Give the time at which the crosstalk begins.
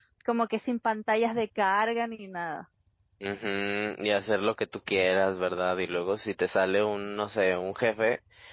none

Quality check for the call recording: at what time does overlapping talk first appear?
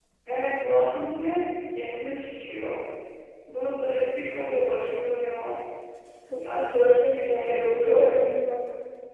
6.3 s

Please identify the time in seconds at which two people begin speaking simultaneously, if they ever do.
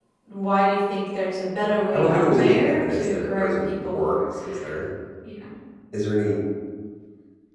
1.6 s

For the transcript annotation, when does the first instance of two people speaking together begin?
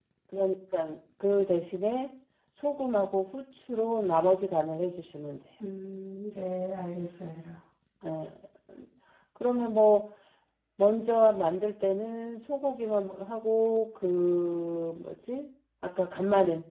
none

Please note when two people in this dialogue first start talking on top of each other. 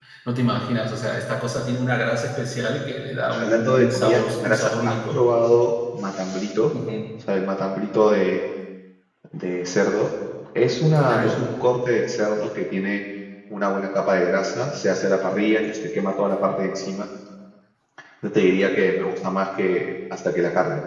3.3 s

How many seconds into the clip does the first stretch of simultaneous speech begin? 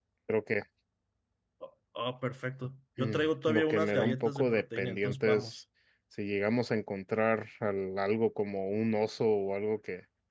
3.0 s

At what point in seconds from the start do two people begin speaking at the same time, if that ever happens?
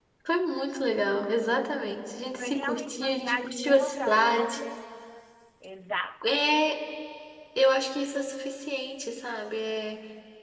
2.4 s

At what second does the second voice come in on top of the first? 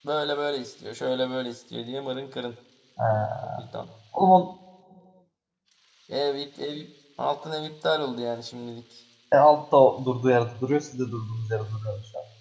none

